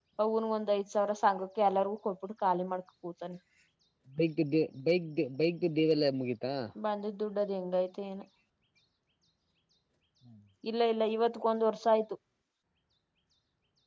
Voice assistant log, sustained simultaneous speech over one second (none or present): none